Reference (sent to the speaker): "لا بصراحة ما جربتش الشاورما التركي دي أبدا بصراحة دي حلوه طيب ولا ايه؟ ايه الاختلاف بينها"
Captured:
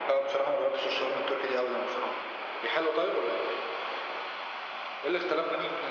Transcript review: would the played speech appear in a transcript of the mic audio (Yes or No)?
Yes